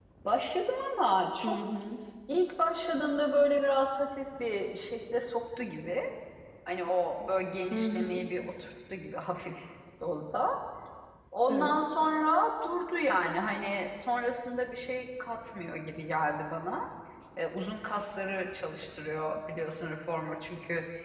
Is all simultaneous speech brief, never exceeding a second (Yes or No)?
Yes